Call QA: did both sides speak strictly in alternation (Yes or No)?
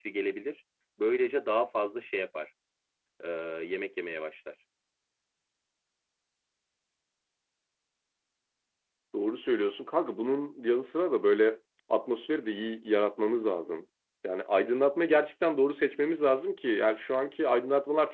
Yes